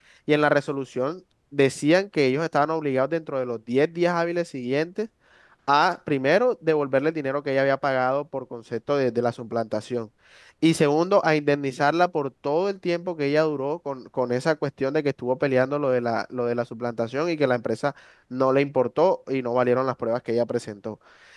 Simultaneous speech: No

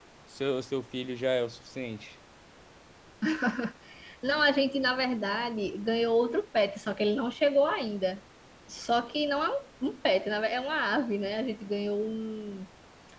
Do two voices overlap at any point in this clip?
No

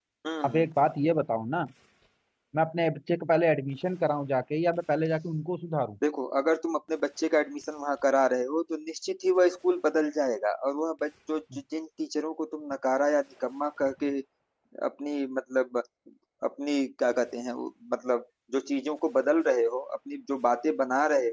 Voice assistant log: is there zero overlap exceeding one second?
Yes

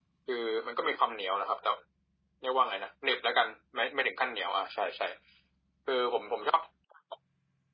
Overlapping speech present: No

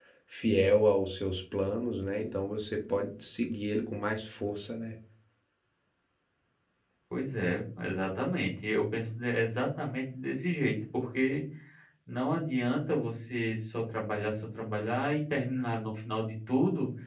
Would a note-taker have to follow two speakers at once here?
No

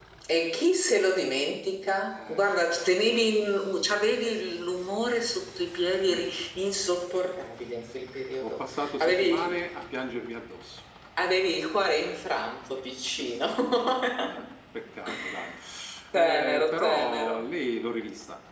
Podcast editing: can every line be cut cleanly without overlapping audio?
No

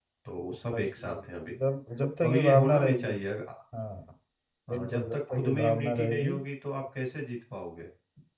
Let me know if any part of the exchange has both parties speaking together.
Yes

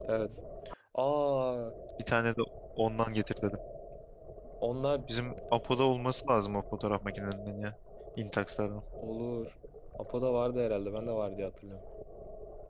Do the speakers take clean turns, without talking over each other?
Yes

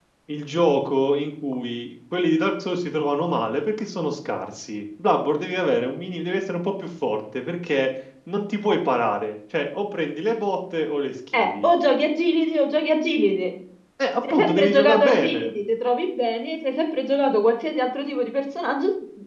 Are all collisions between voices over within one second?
No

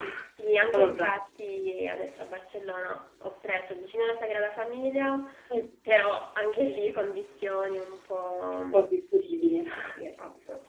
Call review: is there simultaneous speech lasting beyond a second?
No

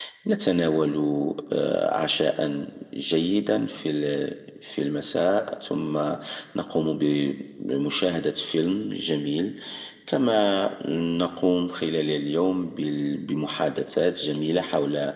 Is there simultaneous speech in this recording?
No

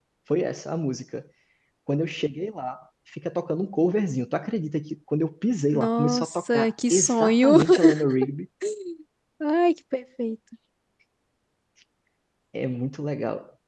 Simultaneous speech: Yes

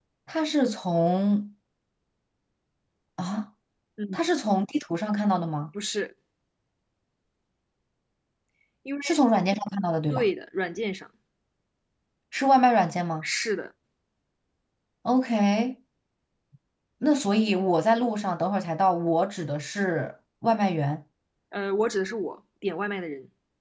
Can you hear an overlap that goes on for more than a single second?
No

